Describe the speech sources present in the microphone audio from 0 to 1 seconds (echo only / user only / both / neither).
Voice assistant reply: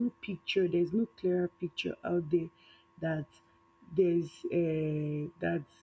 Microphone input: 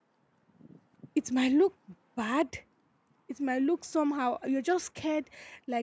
neither